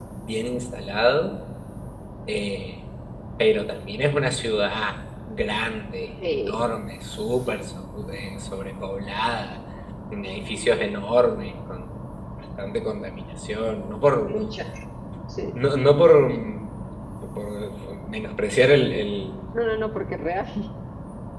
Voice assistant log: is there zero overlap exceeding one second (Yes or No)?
Yes